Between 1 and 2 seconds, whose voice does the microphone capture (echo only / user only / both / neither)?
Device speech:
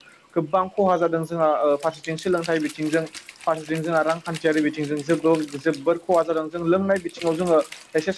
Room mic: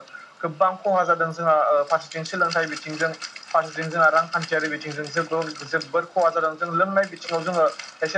echo only